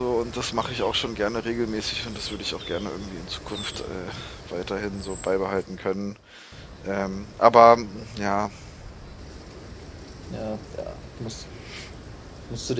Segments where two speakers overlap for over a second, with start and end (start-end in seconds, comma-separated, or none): none